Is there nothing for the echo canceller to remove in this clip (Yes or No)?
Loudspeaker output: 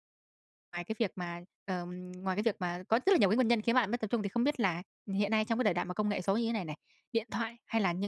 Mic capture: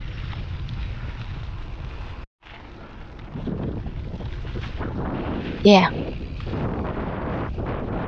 Yes